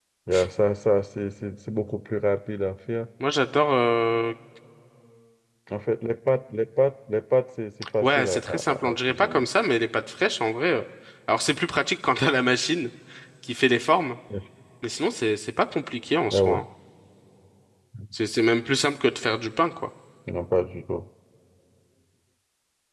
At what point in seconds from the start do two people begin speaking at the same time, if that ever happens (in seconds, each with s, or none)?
8.0 s